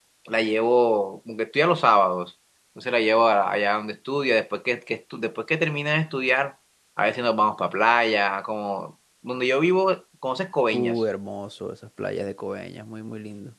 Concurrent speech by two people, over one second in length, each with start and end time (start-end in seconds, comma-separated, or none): none